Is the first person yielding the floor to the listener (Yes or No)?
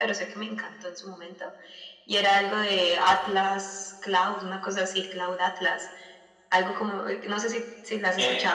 Yes